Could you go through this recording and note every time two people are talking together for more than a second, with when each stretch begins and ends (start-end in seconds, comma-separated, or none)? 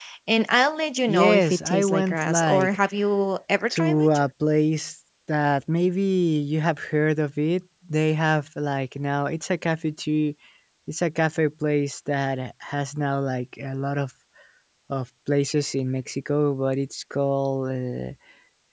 1.1-2.8